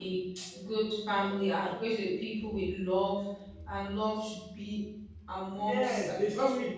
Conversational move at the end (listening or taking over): taking over